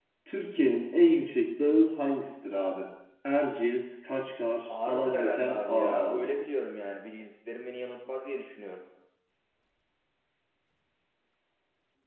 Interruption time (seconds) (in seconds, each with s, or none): 4.7 s